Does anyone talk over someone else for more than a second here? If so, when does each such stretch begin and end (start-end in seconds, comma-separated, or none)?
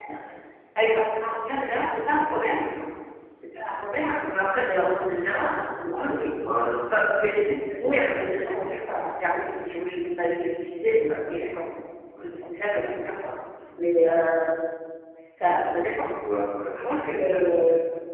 none